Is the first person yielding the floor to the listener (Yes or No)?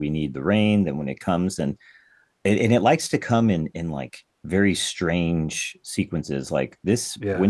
No